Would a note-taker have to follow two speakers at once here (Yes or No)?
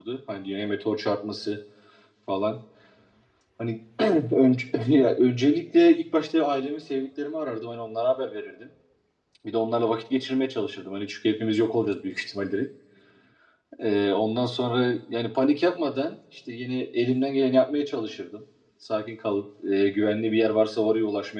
No